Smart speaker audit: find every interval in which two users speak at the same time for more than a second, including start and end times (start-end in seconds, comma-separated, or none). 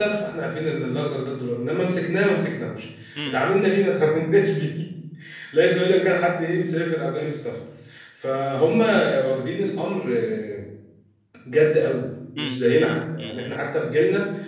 12.4-13.6